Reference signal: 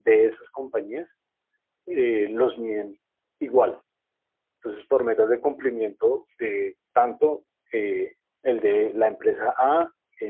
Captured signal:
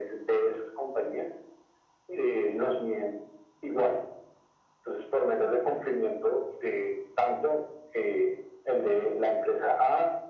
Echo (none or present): present